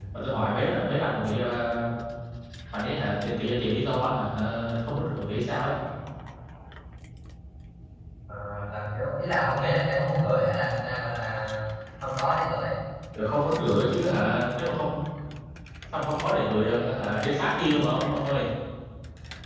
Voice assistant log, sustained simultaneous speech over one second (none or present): none